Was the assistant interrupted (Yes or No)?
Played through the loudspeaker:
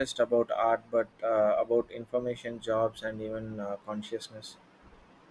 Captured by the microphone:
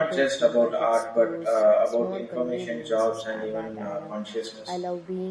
Yes